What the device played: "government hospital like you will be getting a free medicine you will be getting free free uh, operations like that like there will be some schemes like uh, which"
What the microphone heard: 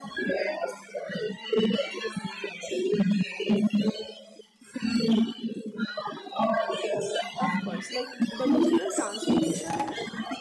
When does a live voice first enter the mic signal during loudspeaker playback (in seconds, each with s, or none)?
7.4 s